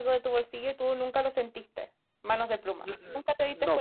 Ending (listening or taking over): taking over